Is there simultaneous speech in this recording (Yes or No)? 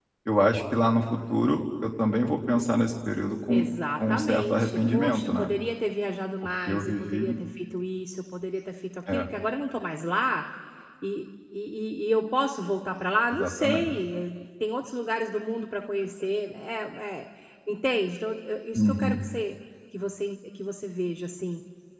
Yes